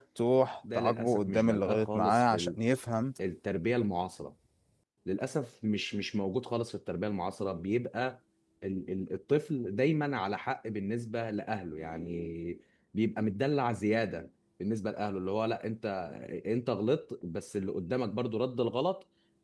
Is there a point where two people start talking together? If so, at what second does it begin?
0.7 s

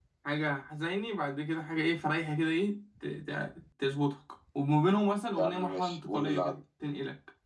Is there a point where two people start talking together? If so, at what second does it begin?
5.3 s

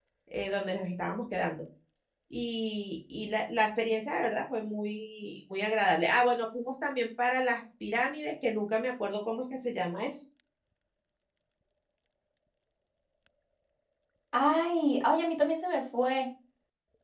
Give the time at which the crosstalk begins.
none

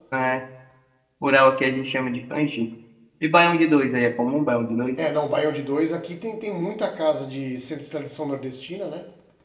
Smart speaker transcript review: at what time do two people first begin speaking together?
none

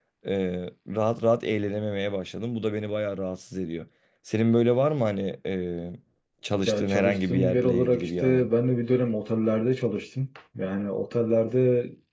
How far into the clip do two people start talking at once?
6.7 s

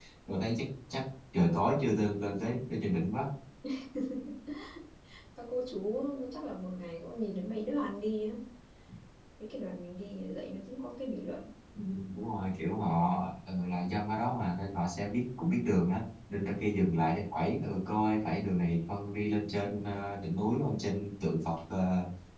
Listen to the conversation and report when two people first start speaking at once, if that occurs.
none

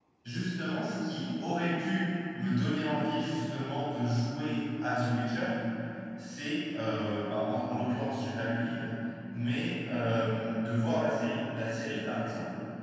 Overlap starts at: none

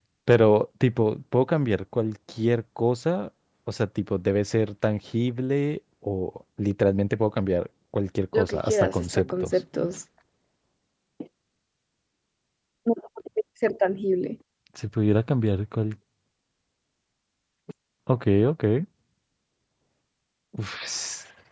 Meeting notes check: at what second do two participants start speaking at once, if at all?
8.3 s

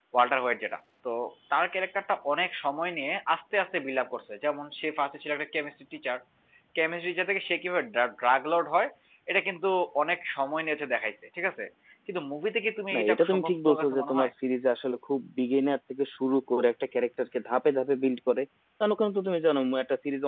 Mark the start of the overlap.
12.9 s

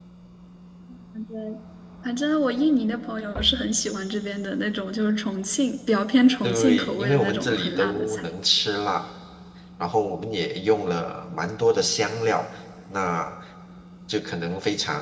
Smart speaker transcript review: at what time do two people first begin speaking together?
6.4 s

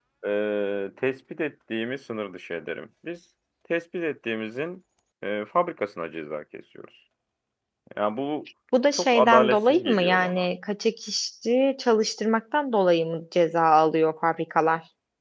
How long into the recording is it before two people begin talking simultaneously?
8.9 s

